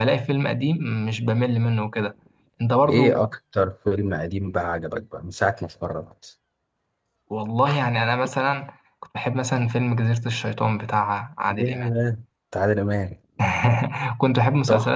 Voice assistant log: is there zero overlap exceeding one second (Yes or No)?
Yes